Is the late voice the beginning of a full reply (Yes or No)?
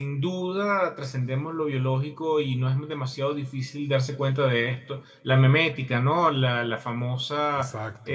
No